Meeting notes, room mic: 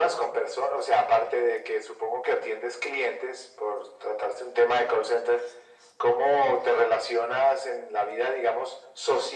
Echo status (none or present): present